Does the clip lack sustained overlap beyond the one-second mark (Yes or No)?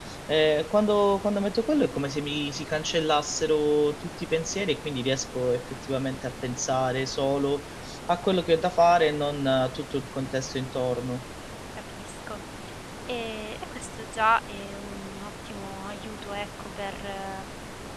Yes